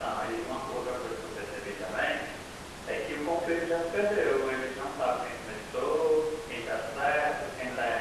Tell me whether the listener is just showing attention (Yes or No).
Yes